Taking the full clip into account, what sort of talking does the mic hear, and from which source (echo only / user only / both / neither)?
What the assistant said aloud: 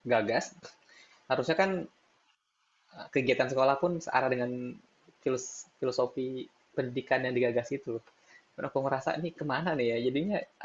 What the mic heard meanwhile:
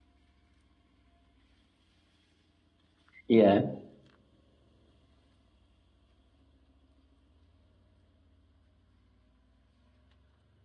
user only